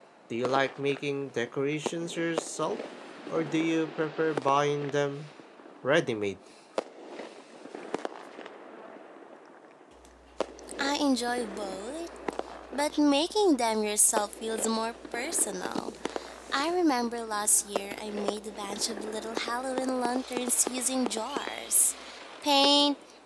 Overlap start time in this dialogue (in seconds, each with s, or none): none